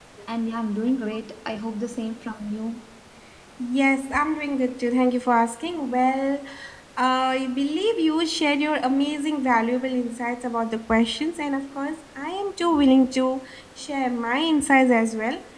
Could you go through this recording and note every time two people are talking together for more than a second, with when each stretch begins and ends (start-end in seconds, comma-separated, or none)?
none